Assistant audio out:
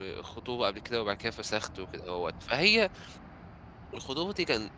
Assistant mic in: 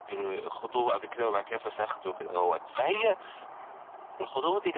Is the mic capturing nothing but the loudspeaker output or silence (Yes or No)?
Yes